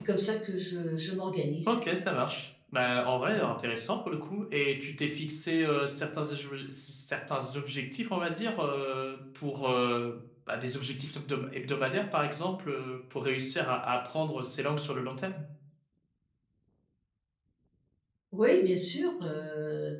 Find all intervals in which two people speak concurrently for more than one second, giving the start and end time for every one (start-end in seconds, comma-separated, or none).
none